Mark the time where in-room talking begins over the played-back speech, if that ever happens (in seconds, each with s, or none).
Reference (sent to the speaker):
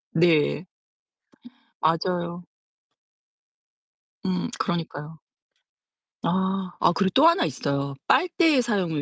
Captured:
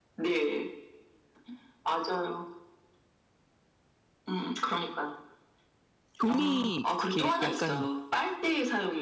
6.1 s